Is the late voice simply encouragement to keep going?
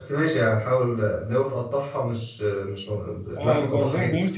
No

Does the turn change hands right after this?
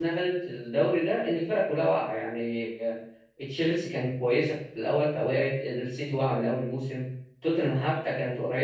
No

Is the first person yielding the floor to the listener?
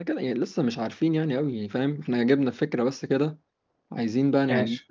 No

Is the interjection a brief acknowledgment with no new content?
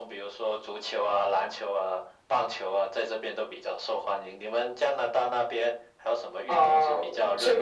No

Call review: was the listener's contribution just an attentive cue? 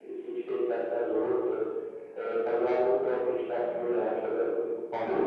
No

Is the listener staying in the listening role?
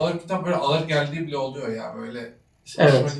Yes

